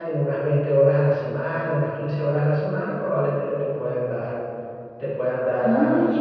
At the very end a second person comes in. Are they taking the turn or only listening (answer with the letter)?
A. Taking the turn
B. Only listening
A